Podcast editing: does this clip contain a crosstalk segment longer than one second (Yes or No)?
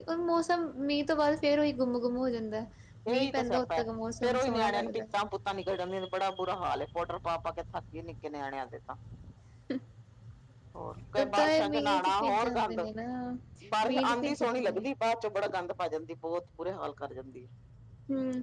Yes